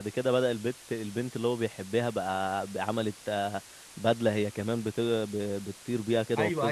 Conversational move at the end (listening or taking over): taking over